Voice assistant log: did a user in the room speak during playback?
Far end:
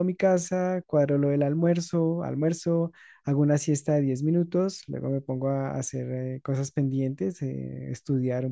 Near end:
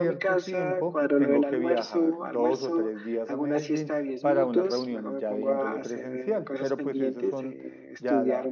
Yes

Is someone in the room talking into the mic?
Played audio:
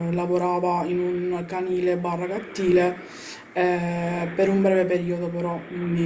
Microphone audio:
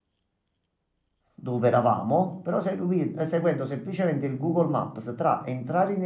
Yes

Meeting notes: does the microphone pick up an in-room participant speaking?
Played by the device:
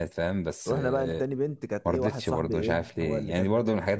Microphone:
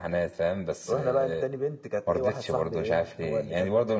No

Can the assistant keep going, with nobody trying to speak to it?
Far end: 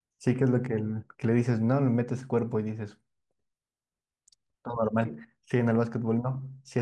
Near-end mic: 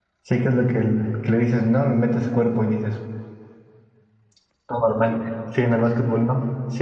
Yes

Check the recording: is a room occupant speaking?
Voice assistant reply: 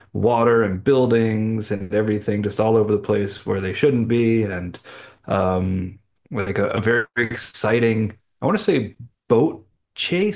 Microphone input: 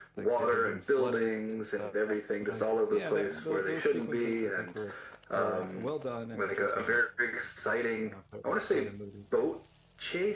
Yes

